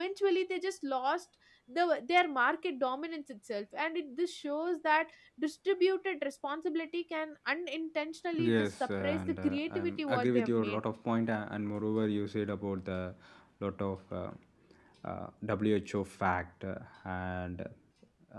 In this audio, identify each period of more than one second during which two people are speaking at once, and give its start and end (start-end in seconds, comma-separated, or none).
8.4-10.8